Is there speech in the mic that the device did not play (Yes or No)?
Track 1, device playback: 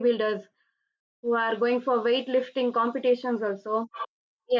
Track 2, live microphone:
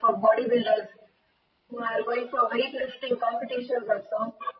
No